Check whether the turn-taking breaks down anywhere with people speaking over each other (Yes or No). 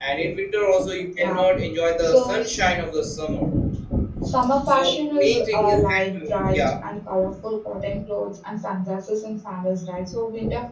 Yes